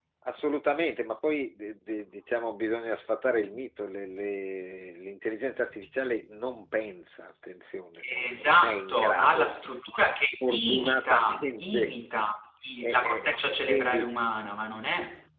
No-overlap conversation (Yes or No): No